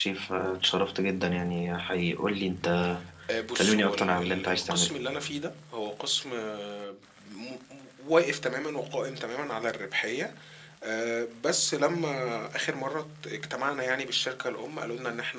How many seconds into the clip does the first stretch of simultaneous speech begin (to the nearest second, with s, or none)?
4 s